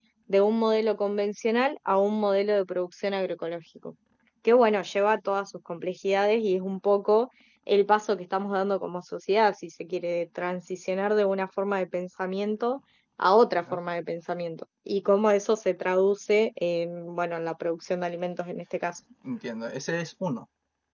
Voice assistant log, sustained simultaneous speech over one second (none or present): none